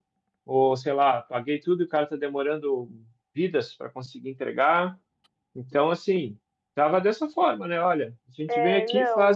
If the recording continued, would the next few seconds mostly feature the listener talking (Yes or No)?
No